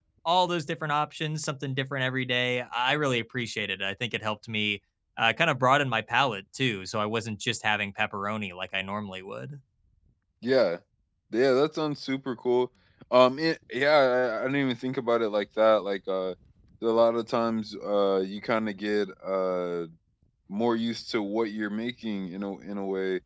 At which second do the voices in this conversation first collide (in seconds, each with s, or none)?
none